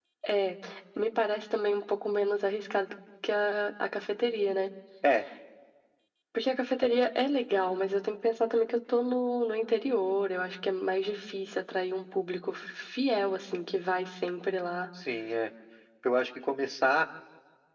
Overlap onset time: none

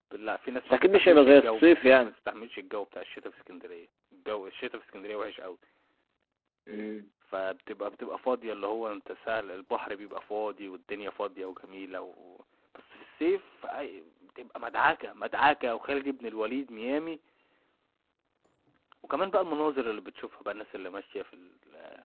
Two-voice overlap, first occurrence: 0.7 s

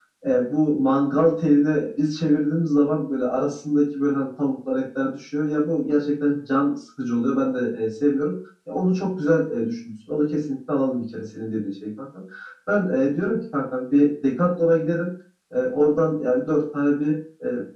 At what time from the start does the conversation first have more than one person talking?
none

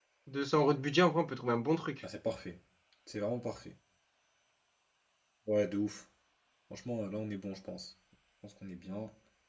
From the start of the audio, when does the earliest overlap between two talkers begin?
none

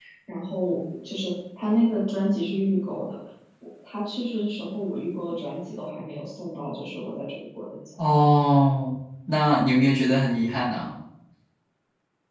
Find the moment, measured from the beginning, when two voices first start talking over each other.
none

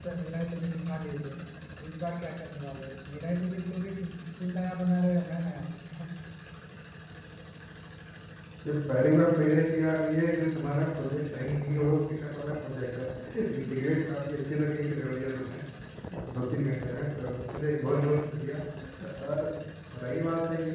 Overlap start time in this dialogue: none

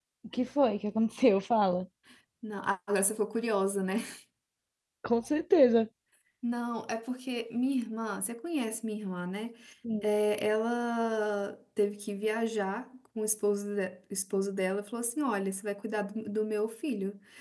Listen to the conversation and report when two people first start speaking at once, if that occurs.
none

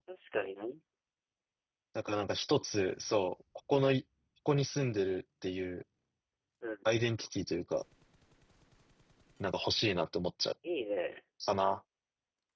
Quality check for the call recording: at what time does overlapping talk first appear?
none

